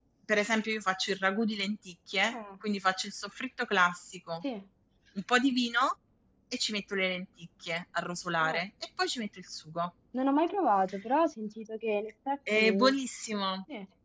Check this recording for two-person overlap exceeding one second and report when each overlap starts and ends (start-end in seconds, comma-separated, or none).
none